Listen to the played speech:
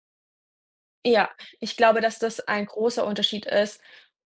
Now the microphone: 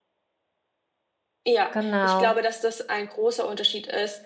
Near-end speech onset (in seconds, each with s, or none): 1.7 s